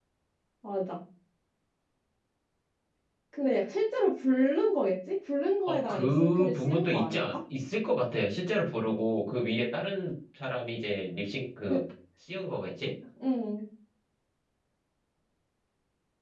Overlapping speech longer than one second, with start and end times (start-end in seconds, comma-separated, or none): 5.7-7.4